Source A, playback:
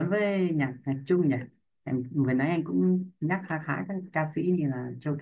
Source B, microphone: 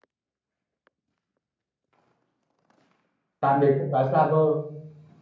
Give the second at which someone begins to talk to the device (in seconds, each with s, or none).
3.4 s